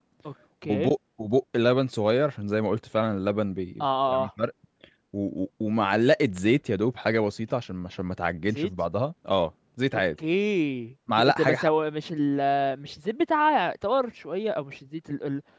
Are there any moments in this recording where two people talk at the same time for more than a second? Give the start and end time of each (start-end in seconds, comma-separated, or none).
none